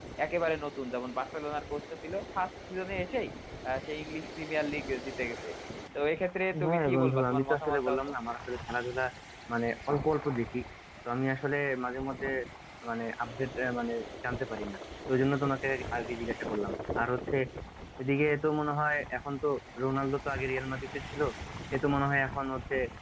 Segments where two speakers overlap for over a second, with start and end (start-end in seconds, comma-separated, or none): 6.7-8.0